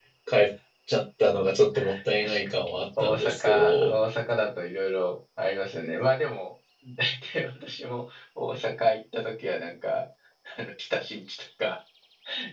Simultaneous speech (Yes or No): Yes